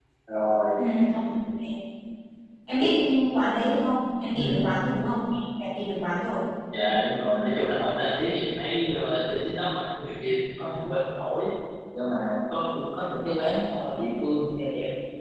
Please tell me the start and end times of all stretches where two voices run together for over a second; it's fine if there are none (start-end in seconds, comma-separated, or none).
none